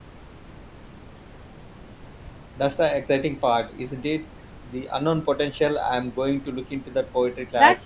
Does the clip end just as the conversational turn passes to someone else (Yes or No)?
Yes